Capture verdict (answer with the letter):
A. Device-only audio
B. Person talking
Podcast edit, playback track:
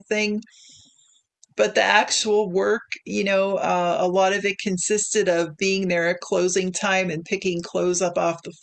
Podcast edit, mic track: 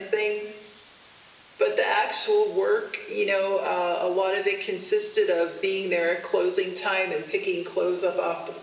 A